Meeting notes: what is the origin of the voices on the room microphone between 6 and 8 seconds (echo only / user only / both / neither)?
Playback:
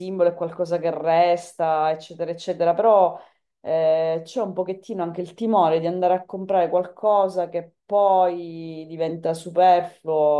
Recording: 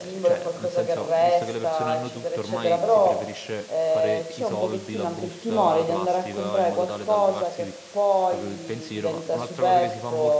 both